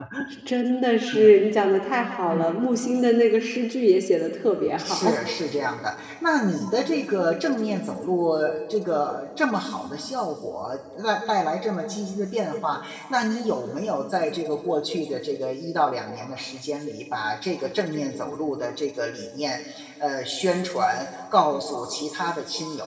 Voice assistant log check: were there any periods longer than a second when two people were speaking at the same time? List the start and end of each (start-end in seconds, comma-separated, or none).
none